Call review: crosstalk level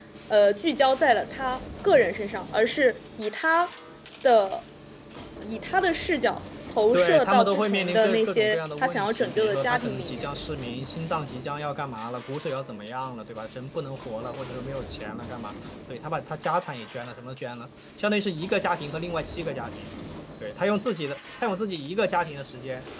present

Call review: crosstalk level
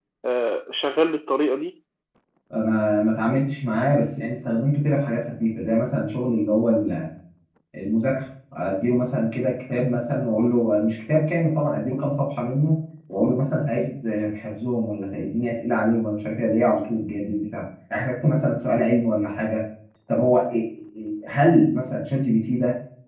none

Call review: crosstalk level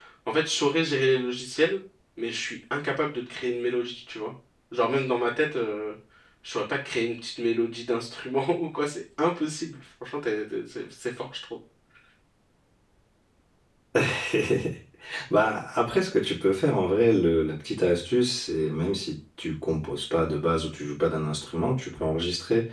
none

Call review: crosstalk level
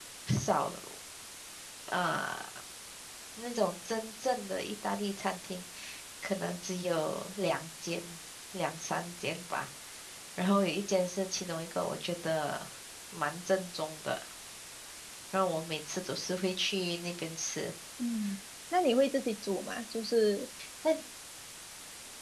none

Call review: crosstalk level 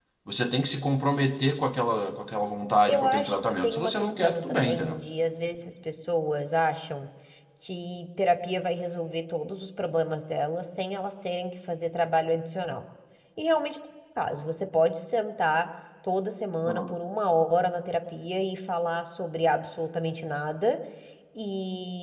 present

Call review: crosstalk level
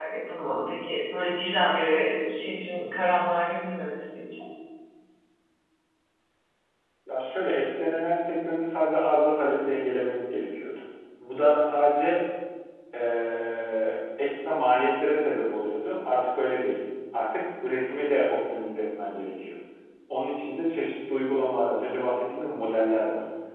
none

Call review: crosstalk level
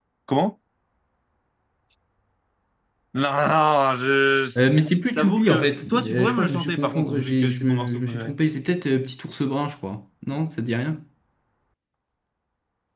present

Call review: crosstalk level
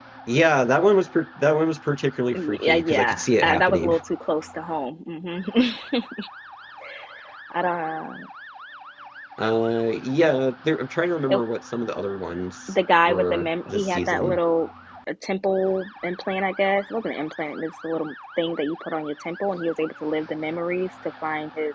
present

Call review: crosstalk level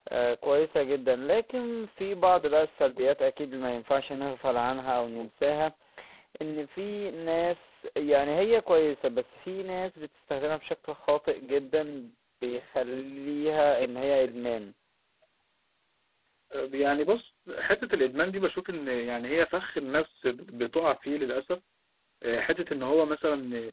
none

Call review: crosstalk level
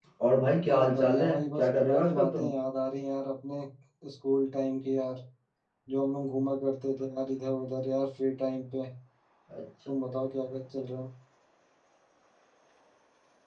present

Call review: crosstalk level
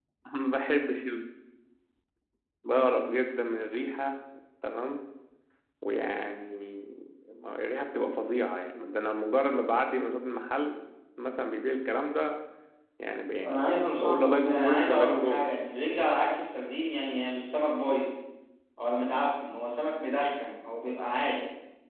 present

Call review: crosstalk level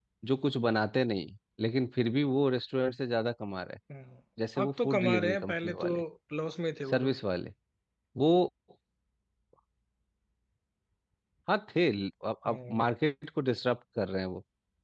present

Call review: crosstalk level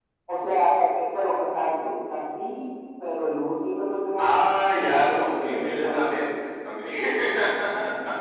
present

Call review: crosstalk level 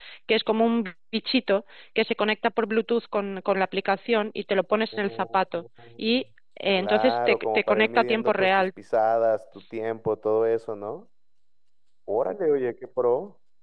present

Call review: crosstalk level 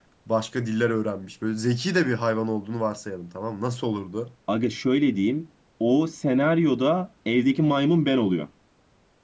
none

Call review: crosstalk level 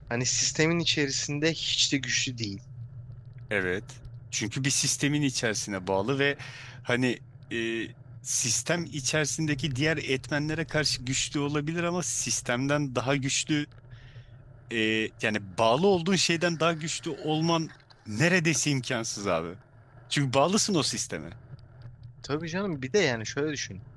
none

